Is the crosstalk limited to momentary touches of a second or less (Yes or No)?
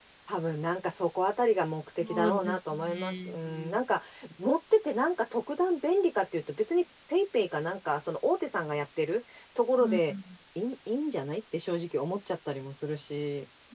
No